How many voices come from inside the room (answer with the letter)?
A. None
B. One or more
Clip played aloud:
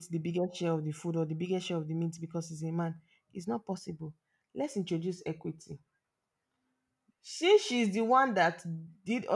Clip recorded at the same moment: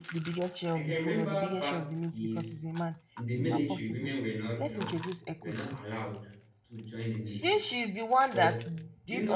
B